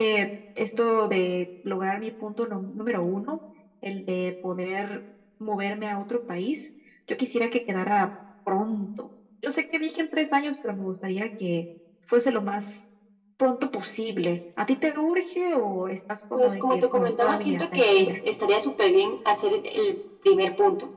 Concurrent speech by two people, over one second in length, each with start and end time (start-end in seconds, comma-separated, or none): 16.3-18.1